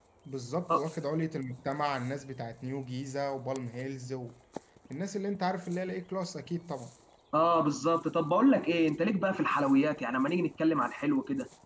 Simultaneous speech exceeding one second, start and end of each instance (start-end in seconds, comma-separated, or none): none